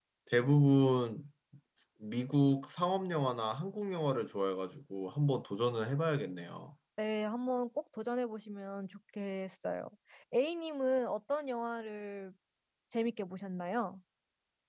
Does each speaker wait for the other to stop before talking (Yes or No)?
Yes